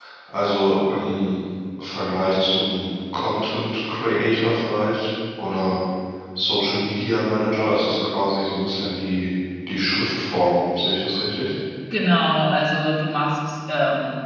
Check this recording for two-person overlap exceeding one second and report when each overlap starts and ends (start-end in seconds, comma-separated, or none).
none